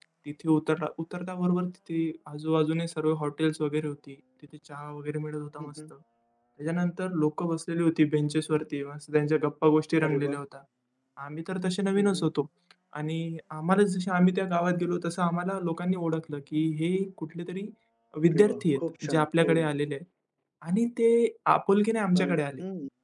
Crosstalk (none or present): present